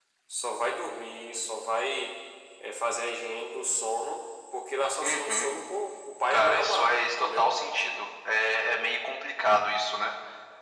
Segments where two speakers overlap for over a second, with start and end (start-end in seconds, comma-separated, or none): 6.3-7.5